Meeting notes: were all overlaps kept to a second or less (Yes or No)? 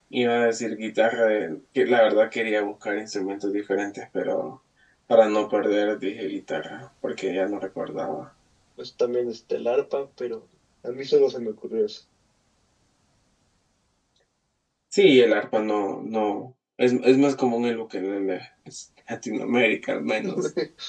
Yes